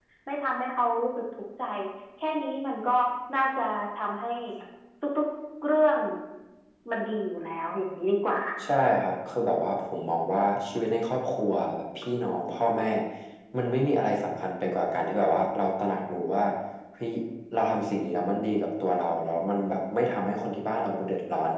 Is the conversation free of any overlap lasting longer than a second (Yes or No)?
Yes